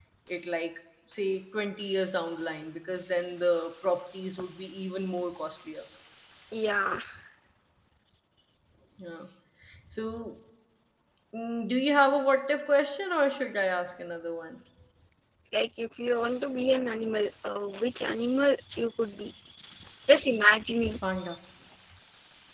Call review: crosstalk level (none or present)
none